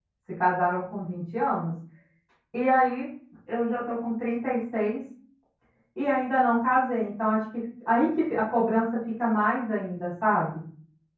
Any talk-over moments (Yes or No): No